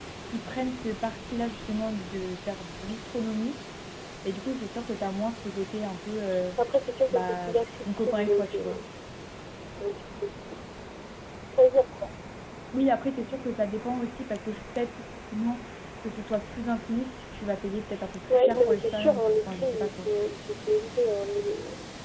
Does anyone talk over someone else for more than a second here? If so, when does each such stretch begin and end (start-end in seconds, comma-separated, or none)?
7.1-8.8, 18.3-20.1